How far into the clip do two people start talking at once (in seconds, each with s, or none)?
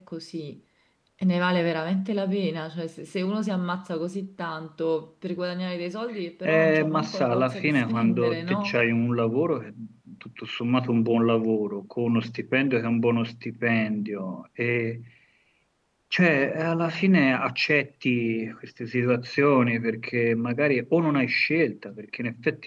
6.5 s